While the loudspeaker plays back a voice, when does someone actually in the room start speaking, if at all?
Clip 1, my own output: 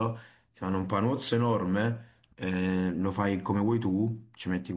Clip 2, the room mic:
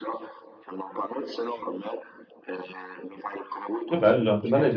3.9 s

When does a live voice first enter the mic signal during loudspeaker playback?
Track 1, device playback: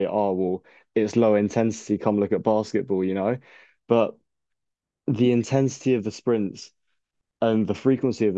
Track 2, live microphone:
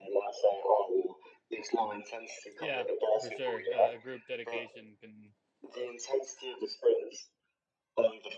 2.6 s

